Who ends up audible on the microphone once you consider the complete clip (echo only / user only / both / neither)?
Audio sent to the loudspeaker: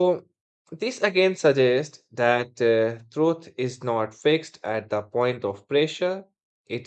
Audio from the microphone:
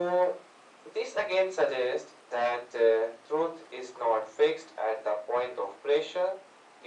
echo only